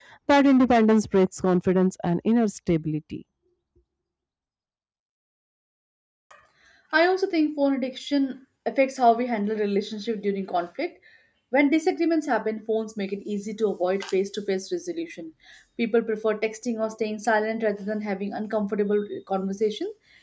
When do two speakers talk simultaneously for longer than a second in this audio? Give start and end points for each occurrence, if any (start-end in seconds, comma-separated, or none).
none